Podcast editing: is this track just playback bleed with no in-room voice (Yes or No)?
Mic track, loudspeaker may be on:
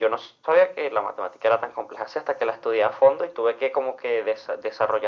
Yes